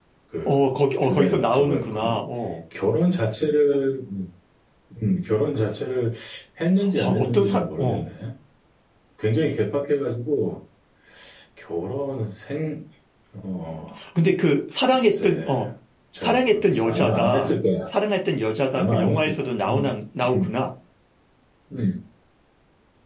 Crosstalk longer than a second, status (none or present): present